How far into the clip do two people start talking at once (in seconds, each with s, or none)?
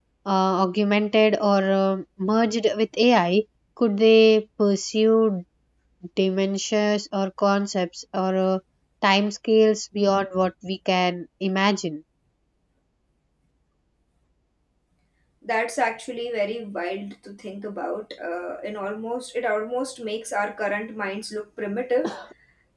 none